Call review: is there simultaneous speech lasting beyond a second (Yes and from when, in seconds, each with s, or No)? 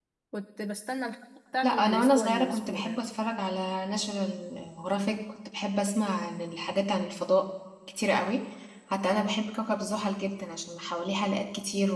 Yes, from 1.6 s